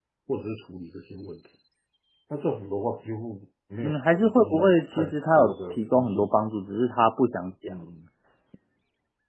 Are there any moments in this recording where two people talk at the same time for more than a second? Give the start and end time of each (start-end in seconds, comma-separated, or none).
3.8-6.3